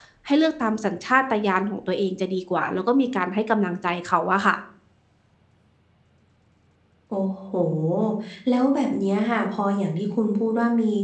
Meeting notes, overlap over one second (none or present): none